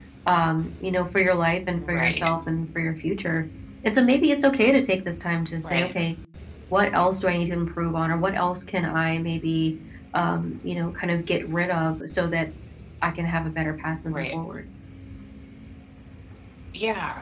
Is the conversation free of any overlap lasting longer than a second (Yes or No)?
Yes